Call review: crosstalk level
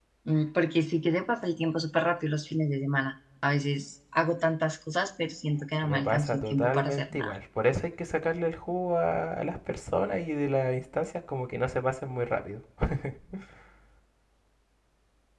present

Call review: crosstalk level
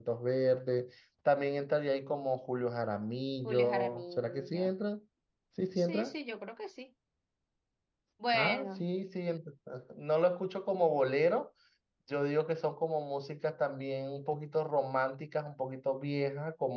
present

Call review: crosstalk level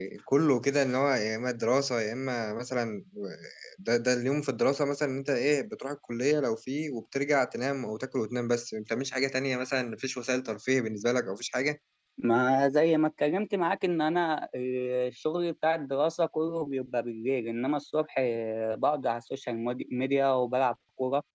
none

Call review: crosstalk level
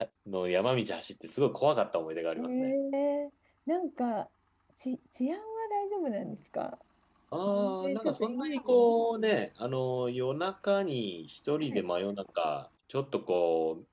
present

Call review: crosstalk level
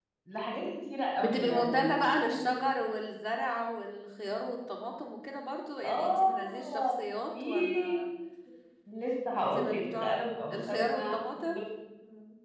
present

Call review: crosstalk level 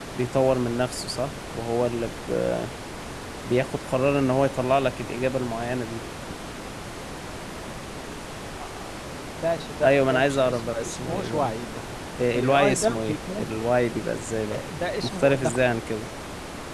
present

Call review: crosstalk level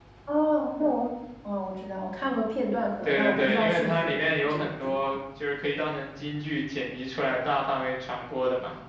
present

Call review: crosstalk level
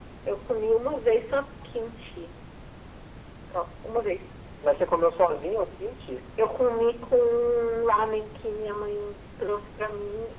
none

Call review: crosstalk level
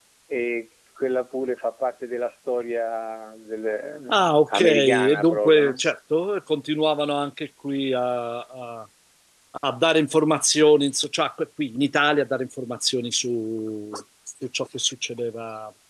present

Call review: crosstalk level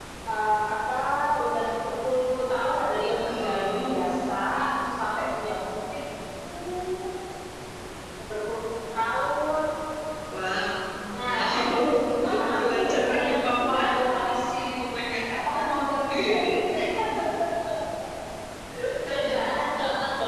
present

